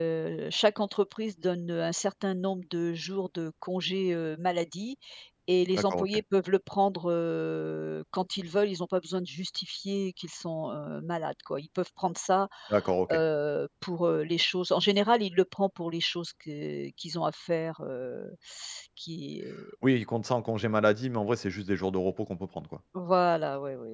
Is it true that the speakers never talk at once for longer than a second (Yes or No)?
Yes